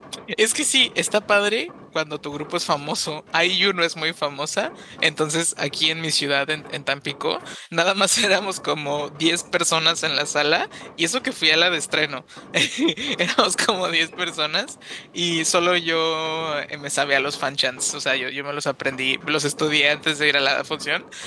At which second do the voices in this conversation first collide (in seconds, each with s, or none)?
none